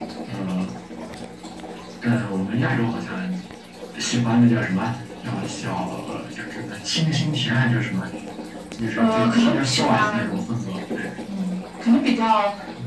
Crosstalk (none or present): present